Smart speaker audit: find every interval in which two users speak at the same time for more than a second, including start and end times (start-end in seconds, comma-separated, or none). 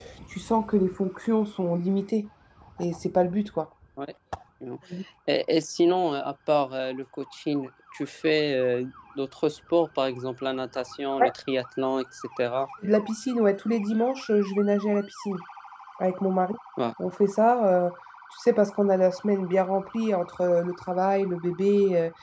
none